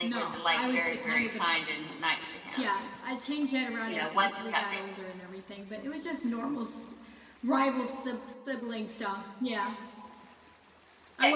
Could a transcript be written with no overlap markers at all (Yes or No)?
No